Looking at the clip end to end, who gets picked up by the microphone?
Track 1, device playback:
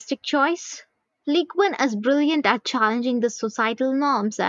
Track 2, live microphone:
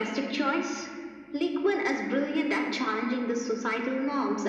echo only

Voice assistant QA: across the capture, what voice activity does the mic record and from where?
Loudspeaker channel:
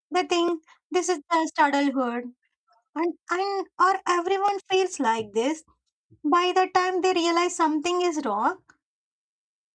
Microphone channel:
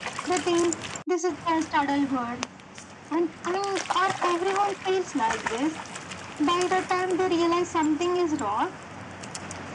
echo only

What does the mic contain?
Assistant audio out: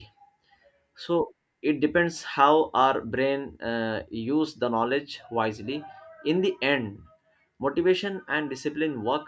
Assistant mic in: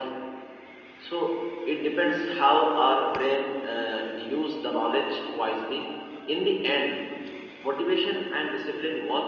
echo only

